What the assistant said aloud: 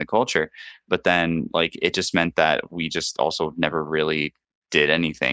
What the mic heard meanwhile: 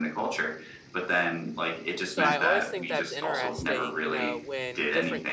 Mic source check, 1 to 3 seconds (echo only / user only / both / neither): both